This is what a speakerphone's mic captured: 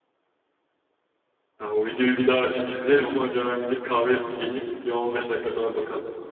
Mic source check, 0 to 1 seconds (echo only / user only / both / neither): neither